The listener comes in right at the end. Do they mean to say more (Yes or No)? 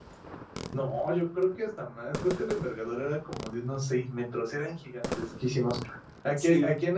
No